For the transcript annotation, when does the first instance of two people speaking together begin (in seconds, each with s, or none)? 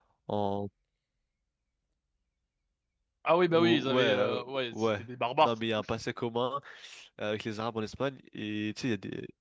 3.5 s